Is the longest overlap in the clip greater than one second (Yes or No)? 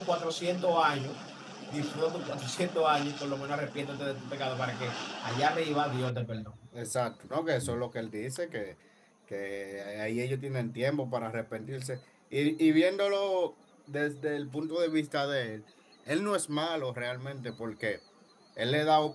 No